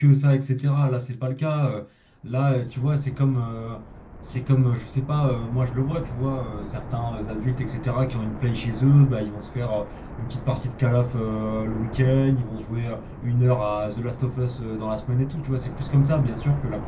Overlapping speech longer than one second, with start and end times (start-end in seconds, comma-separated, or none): none